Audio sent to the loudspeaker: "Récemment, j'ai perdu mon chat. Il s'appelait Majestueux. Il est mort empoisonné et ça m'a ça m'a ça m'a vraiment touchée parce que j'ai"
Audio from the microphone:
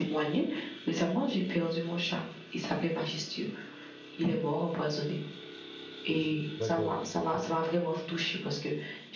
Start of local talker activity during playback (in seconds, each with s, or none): 6.6 s